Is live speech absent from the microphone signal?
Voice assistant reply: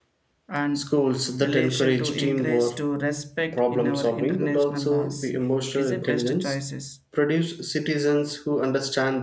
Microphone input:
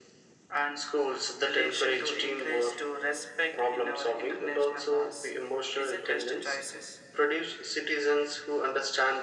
Yes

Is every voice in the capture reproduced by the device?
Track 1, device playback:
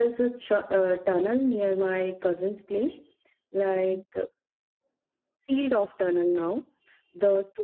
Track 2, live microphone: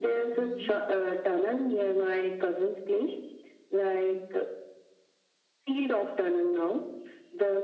No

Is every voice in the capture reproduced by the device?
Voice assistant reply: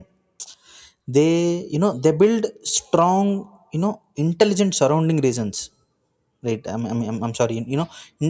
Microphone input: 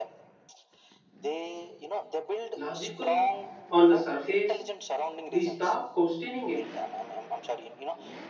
No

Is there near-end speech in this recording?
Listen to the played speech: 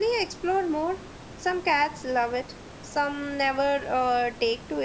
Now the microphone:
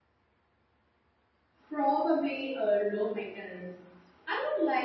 Yes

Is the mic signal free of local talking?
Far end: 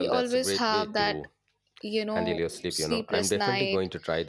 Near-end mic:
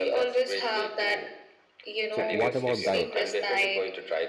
No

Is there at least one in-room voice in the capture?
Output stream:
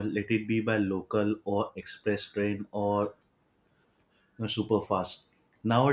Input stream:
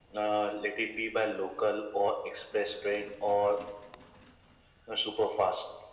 No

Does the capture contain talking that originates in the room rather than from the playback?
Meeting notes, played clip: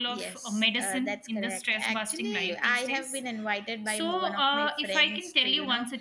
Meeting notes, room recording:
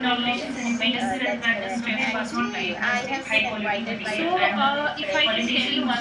Yes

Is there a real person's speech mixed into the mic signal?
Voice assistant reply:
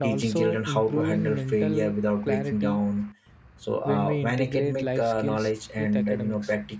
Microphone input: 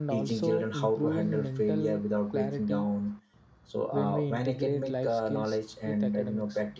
No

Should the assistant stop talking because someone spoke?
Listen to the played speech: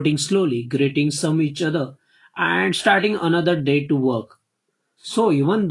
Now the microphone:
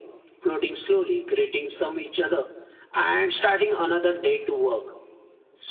No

